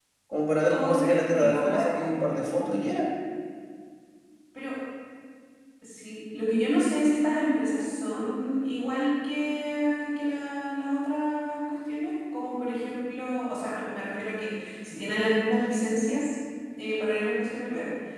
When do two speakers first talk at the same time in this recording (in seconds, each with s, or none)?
0.7 s